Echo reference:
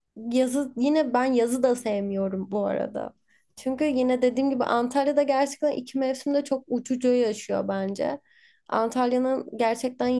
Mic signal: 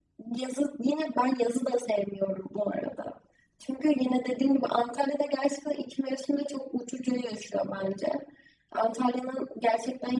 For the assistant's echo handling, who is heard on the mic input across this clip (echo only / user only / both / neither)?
echo only